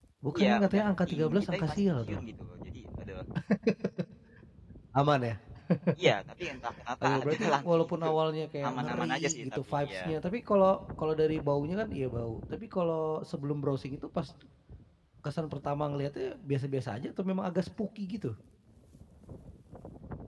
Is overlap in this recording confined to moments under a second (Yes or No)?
No